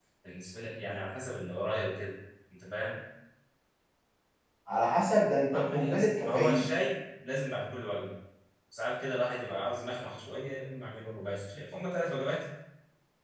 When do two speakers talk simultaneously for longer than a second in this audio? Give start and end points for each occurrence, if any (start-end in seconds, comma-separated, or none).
5.4-6.6